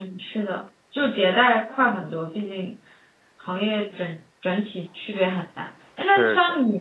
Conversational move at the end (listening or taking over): listening